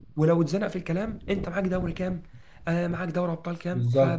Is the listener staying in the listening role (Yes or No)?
No